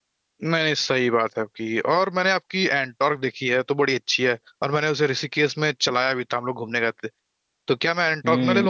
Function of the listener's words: taking over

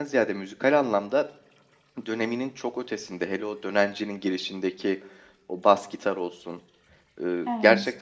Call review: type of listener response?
listening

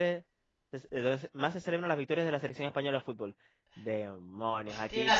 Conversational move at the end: taking over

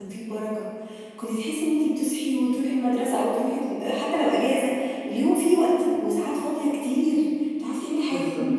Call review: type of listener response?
listening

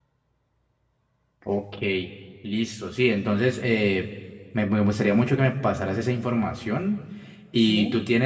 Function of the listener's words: listening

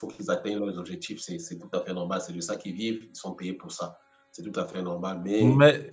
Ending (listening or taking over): taking over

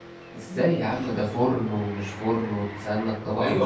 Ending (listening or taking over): taking over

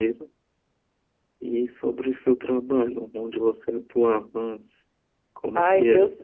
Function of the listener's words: taking over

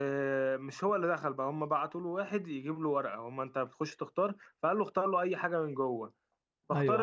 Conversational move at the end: listening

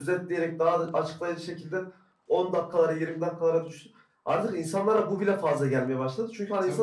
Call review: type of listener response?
listening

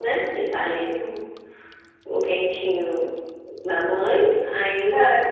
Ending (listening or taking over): listening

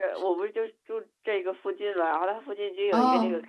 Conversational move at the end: listening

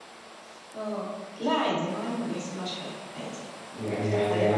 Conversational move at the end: taking over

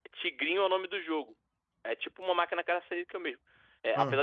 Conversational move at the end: listening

